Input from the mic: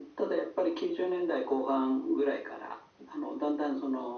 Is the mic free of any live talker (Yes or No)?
Yes